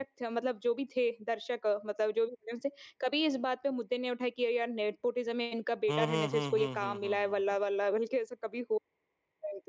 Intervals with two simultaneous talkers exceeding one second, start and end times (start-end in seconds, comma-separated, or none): 5.9-7.4